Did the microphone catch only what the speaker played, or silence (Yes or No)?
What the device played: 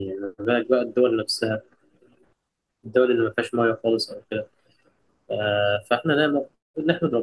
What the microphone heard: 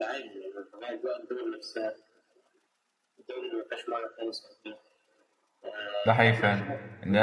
No